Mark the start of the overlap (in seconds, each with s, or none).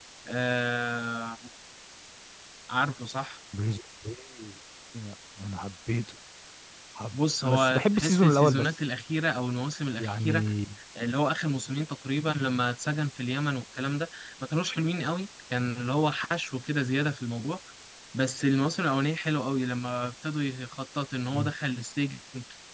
7.1 s